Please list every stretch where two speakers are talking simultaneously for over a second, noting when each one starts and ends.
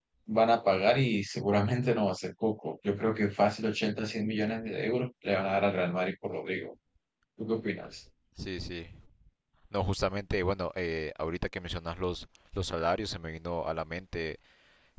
none

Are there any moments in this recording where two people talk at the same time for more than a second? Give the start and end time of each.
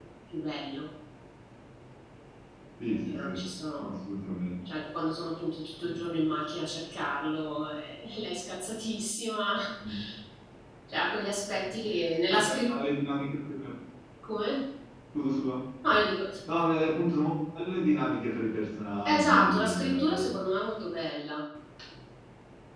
19.1-20.4

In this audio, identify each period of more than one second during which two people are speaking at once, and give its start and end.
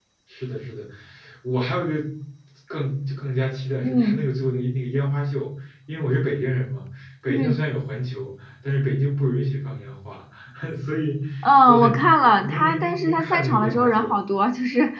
11.7-14.2

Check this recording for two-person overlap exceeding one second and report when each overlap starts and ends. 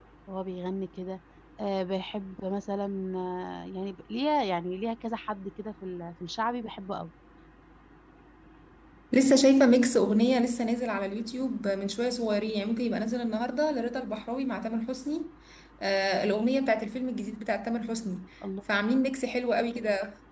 none

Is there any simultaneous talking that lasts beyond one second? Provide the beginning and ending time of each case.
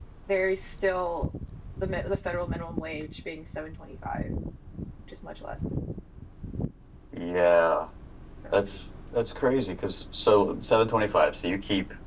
none

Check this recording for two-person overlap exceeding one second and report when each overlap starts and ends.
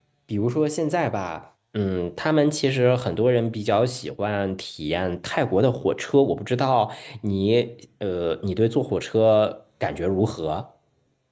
none

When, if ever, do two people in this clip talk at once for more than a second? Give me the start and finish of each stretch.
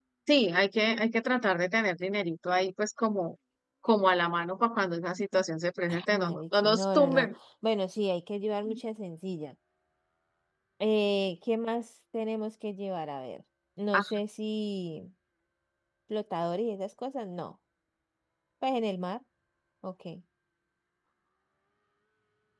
5.9-7.3

